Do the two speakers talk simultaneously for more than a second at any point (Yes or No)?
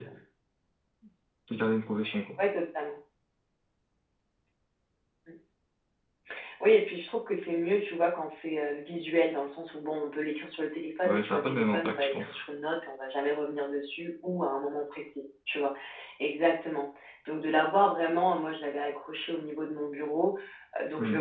Yes